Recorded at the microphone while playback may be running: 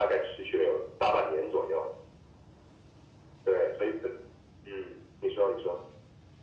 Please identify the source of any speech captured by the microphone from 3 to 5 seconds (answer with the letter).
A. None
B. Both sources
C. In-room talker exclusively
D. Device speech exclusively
D